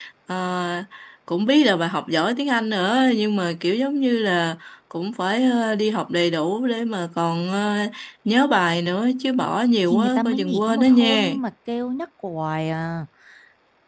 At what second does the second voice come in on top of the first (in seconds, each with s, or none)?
9.9 s